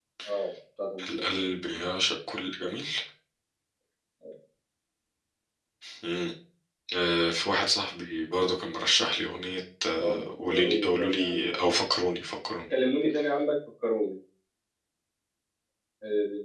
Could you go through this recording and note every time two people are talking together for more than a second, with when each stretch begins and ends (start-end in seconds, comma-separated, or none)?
10.0-11.6